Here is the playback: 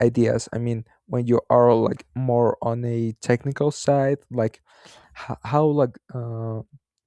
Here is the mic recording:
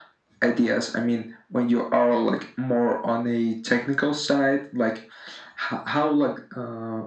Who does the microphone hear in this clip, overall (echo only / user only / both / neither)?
echo only